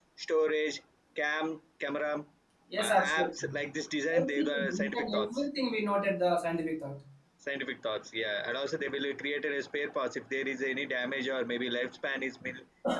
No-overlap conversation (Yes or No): No